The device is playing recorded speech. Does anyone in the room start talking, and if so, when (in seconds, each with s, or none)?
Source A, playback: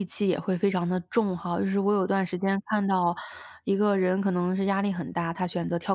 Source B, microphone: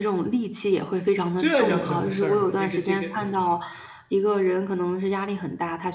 1.4 s